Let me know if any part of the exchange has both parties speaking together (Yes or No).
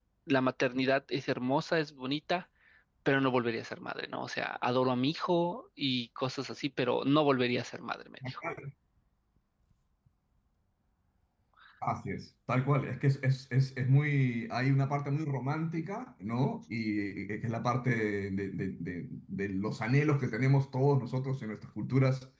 No